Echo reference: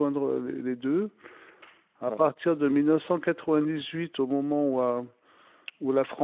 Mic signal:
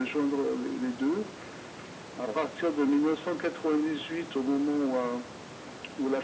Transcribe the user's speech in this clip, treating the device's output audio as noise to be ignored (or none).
none